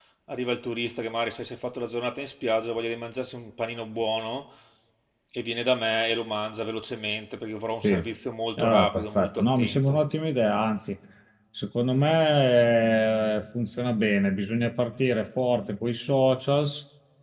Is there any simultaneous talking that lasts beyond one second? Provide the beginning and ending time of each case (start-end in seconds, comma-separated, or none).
8.6-10.0